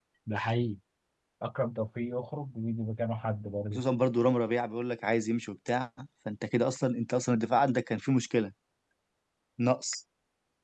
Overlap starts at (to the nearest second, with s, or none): none